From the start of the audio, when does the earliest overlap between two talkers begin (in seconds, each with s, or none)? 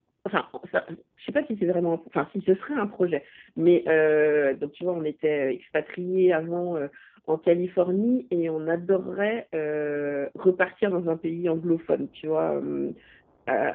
none